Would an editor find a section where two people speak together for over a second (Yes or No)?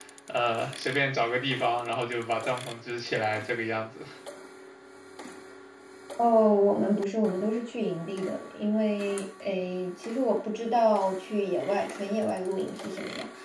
No